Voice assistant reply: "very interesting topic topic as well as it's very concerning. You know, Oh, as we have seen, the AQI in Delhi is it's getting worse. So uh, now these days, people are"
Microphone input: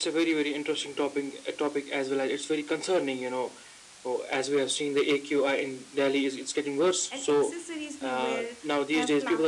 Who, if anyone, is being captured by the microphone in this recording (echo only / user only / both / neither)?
both